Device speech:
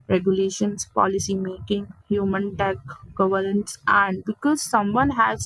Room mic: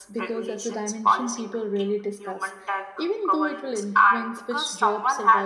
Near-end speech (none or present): present